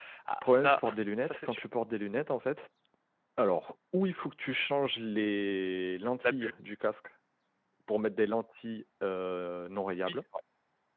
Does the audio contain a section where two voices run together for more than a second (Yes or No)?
No